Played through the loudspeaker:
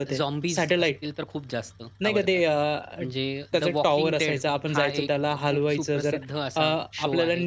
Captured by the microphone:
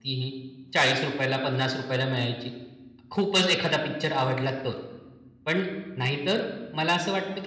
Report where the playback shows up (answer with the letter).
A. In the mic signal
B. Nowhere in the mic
B